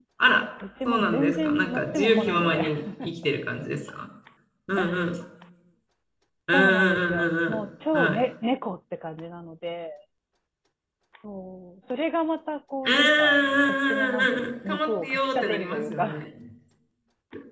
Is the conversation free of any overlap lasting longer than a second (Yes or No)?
No